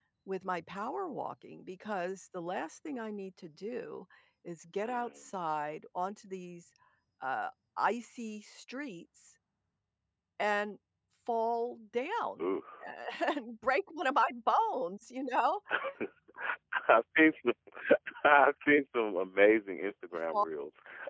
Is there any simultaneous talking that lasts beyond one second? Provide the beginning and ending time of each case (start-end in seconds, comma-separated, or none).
none